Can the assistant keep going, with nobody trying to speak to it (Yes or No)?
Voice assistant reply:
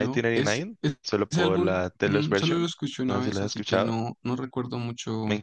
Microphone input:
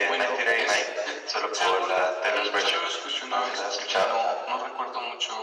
Yes